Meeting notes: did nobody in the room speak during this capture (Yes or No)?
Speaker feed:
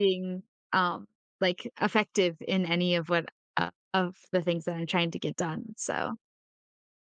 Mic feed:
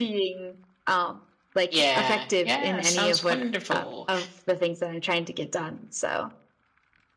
No